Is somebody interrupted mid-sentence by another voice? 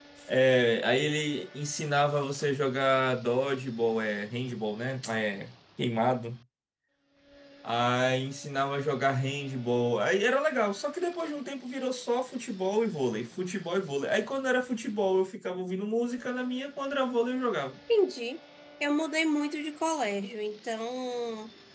No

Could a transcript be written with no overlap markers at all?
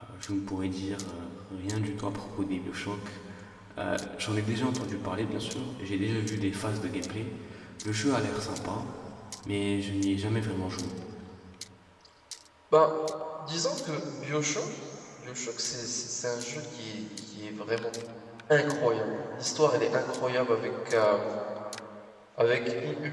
Yes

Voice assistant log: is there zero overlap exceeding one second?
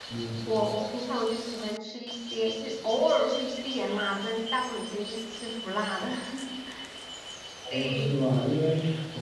Yes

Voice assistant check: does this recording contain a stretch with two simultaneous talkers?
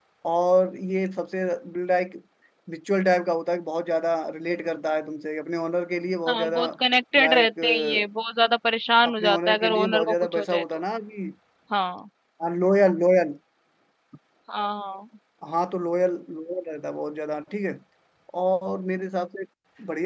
Yes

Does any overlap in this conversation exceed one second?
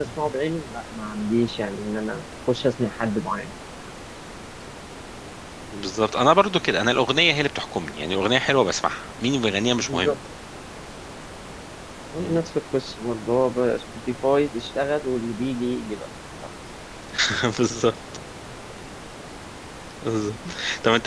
No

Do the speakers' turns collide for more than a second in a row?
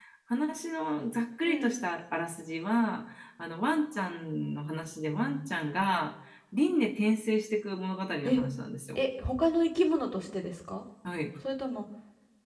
No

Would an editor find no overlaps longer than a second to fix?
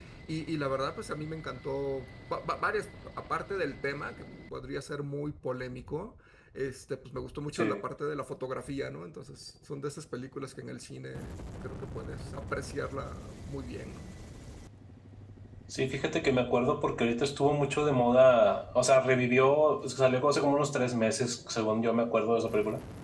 Yes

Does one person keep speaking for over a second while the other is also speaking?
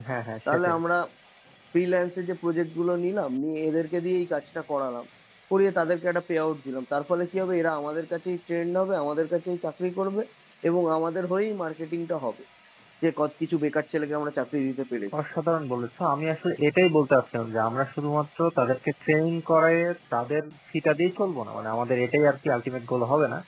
No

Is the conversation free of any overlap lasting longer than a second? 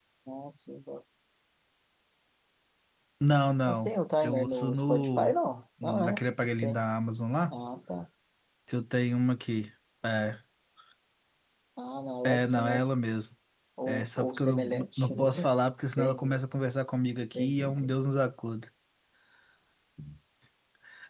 No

